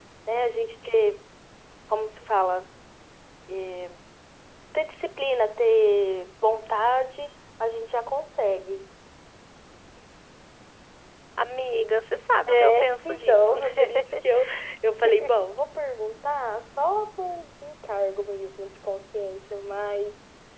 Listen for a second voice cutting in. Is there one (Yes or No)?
Yes